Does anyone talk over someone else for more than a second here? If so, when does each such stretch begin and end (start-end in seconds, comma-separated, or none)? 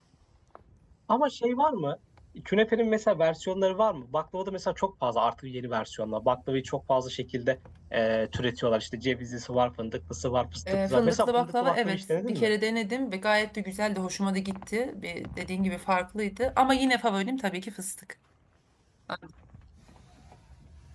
10.7-12.5